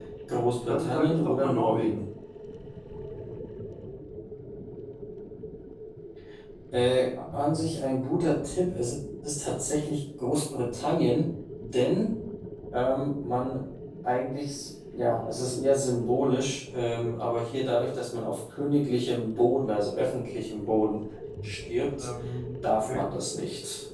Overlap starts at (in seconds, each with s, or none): 0.7 s